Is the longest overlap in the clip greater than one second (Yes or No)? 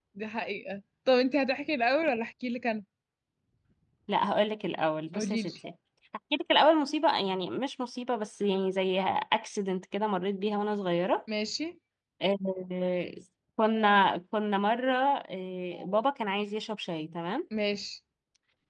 No